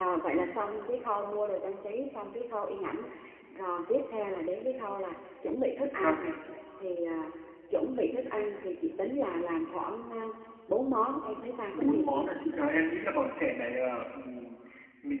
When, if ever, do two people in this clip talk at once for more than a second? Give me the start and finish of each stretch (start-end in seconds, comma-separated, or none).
none